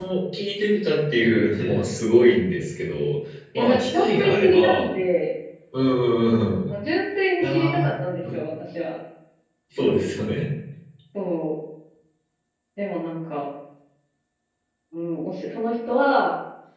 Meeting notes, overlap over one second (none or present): present